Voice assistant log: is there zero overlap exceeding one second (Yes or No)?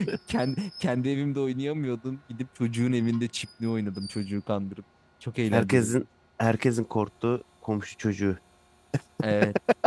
Yes